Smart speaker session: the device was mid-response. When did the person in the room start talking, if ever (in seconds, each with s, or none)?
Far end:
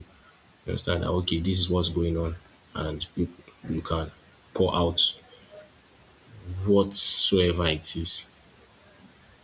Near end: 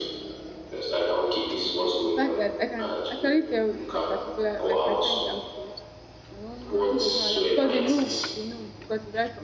2.0 s